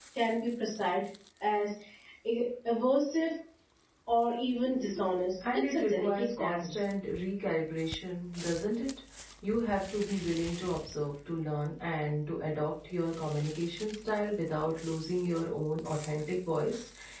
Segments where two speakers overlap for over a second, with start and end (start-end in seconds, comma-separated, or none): 5.5-6.8